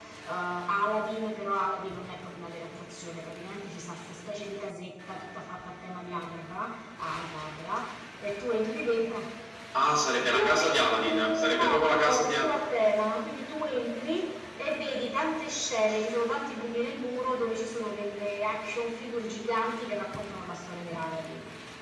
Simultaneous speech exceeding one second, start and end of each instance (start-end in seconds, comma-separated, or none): 10.3-12.6